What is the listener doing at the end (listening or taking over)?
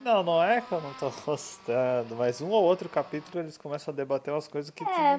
taking over